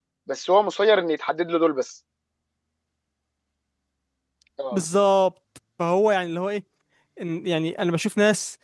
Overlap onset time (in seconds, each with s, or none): none